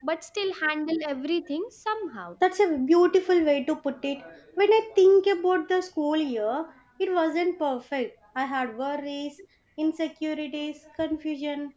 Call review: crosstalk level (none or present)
none